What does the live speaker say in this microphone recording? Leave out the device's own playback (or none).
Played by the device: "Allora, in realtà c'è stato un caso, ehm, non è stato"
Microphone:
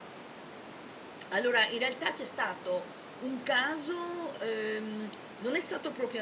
none